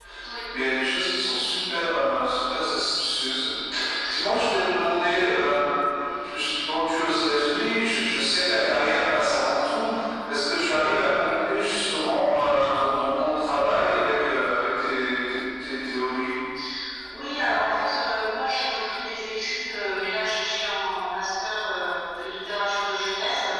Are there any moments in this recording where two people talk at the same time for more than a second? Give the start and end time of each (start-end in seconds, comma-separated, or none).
none